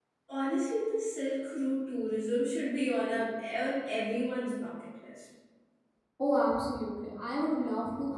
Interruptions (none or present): none